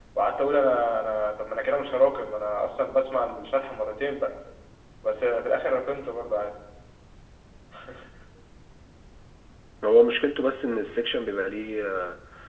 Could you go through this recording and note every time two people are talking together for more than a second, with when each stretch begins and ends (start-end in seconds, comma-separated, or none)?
none